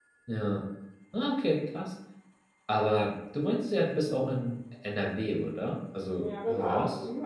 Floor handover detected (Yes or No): Yes